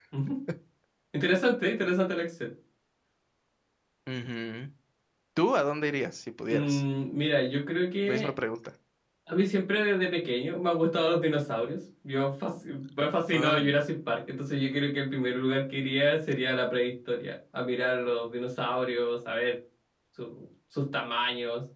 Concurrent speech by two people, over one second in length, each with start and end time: none

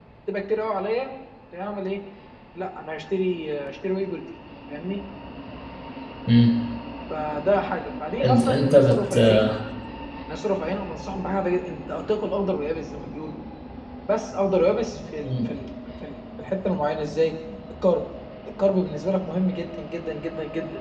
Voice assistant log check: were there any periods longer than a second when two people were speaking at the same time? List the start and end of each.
8.2-9.5

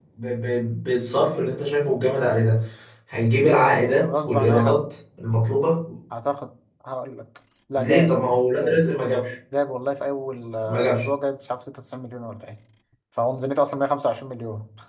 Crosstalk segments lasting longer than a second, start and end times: 3.4-4.8

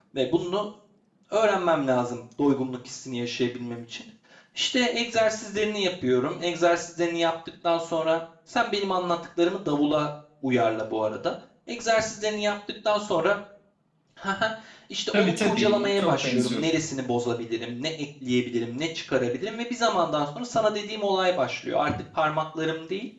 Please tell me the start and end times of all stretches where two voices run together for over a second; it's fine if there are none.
15.1-16.6

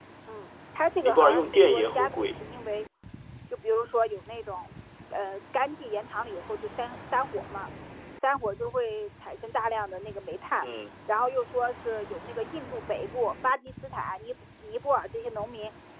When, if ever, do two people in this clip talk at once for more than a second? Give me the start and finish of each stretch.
1.0-2.3

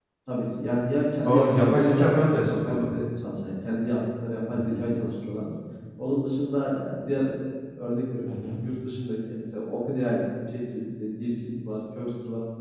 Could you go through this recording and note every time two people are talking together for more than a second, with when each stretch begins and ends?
1.3-2.9

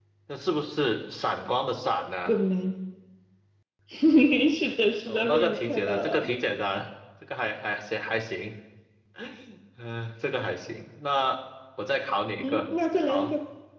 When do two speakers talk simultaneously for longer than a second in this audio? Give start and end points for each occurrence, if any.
5.0-6.3

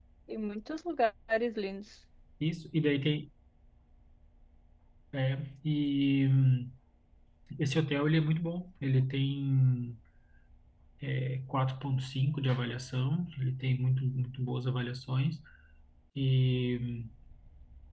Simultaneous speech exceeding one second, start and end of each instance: none

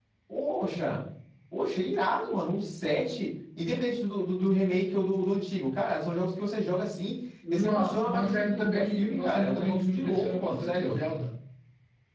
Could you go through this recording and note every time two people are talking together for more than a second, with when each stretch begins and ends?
7.5-11.0

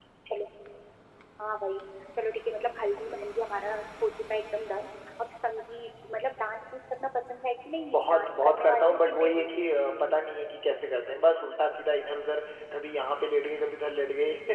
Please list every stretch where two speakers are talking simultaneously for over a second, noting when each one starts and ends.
7.9-9.4

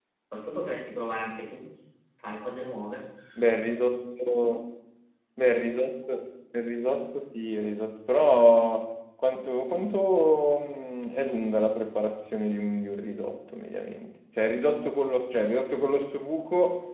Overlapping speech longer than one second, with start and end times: none

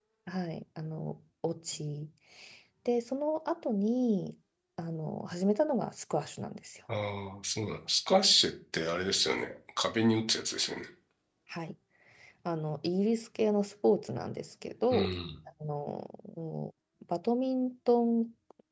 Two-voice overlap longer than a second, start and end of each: none

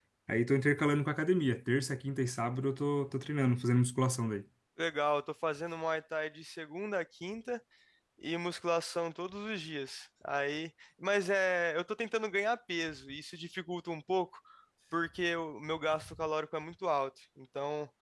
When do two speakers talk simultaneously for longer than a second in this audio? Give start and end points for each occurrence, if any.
none

